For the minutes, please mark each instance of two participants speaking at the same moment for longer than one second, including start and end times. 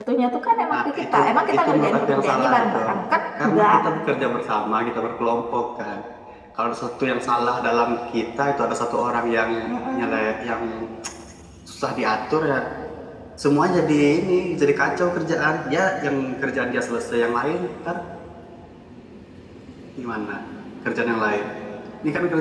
1.6-2.8

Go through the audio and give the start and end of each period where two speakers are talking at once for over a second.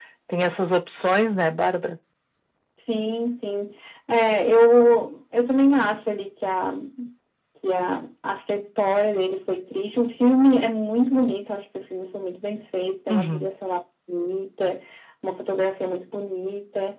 none

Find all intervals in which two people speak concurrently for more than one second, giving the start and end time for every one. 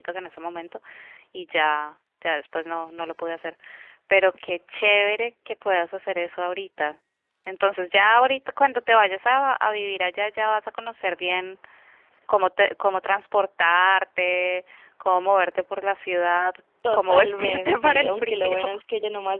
16.9-18.6

